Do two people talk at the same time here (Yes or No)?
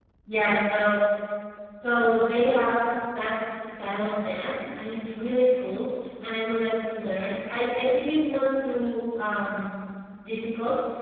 No